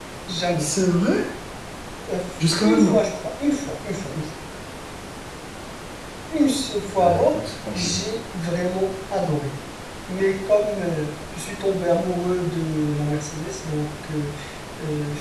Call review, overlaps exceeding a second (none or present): none